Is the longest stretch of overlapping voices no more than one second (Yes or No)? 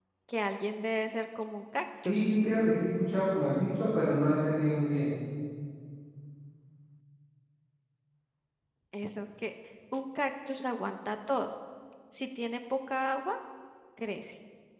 Yes